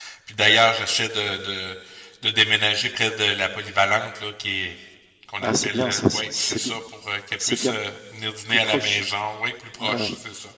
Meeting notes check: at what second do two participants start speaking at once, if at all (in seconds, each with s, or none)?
5.4 s